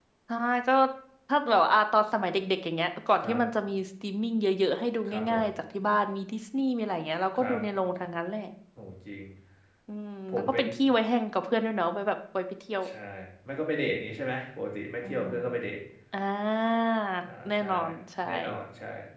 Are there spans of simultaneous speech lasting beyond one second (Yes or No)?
No